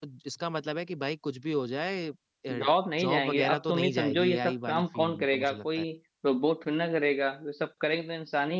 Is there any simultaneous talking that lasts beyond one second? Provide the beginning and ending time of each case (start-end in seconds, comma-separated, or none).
3.0-5.8